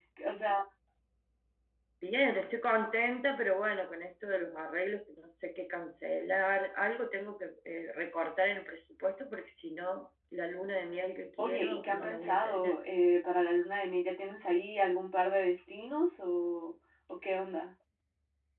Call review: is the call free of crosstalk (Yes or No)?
No